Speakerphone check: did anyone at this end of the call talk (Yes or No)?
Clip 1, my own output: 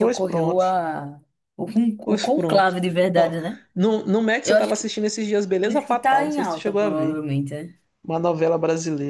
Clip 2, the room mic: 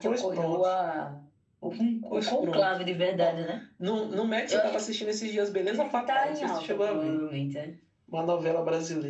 No